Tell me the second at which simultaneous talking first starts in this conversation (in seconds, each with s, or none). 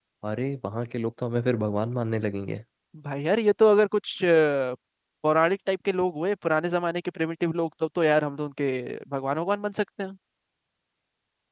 none